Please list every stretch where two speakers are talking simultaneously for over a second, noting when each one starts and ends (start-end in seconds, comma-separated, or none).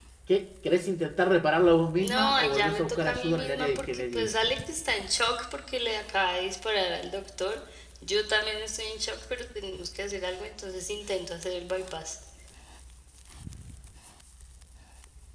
2.0-4.3